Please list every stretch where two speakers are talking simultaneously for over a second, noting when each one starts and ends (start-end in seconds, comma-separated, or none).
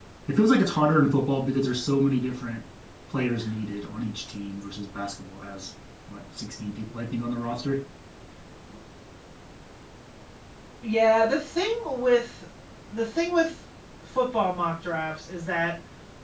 none